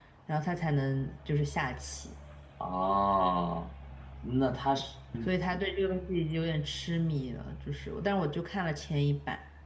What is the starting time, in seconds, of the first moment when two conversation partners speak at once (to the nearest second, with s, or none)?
none